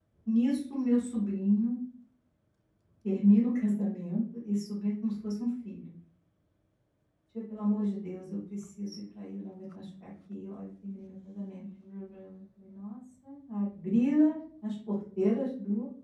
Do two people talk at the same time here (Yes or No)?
No